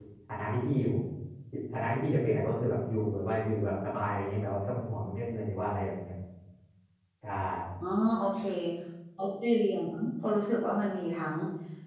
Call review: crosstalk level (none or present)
none